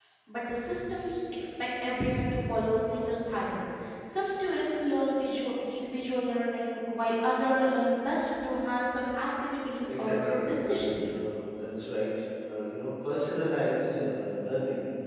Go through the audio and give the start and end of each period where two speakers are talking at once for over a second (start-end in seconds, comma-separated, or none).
9.9-11.2